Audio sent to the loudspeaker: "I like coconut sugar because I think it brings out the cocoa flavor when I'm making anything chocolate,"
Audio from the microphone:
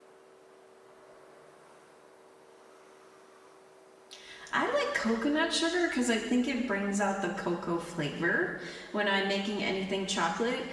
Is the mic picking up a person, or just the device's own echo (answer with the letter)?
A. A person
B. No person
B